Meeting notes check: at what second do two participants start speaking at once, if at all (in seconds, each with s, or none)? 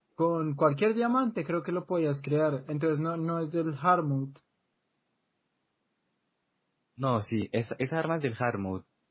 none